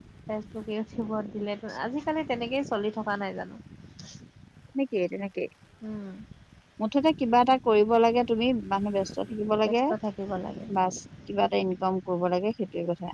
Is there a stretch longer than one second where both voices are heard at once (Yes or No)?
No